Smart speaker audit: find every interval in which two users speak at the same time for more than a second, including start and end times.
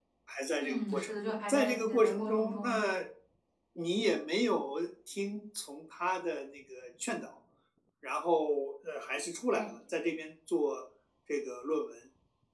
0.6-2.8

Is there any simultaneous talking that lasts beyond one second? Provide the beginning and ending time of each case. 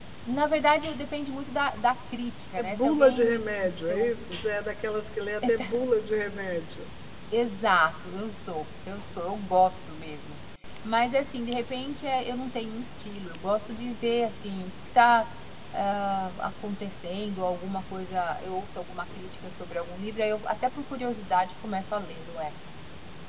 2.6-4.1

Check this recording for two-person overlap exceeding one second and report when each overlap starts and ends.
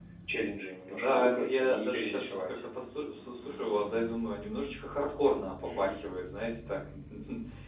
0.9-2.6

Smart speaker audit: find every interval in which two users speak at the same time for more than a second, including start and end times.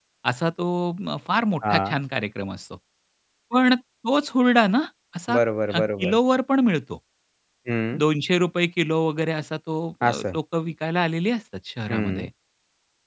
none

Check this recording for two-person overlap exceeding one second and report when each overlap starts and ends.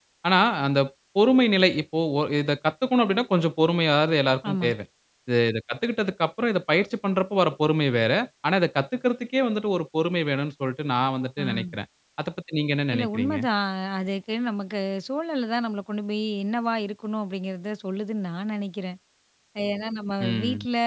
none

